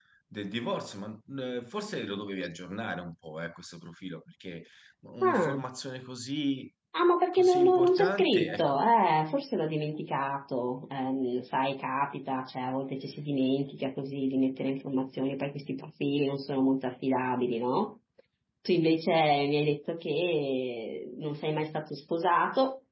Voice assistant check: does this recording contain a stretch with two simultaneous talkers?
Yes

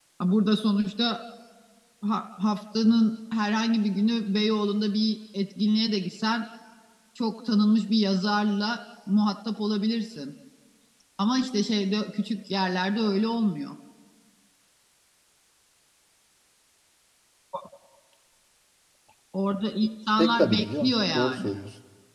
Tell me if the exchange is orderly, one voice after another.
No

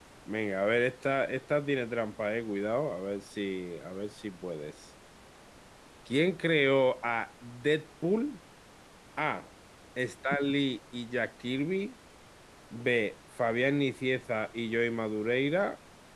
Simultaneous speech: No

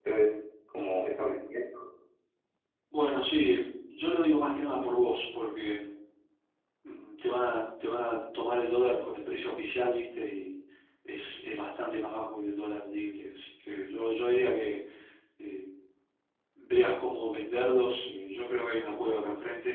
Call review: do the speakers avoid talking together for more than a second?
Yes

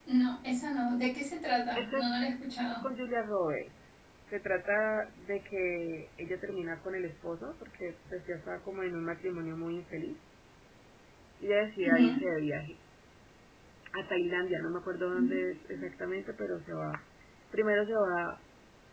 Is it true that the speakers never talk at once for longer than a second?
Yes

